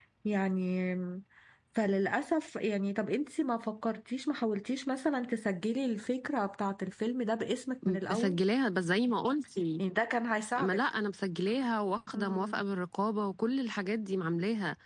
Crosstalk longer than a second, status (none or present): none